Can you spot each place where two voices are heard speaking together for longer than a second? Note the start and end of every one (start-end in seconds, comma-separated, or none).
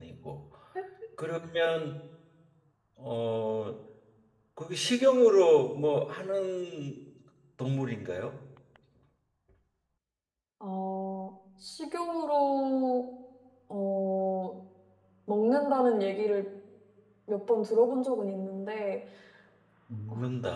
none